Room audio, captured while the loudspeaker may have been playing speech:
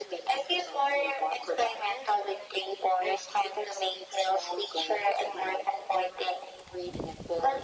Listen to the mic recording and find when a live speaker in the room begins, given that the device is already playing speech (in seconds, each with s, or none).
none